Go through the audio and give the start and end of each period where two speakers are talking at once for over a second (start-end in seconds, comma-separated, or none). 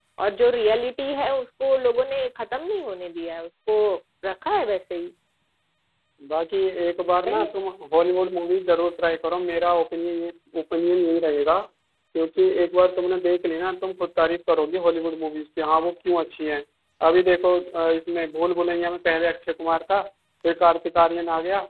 none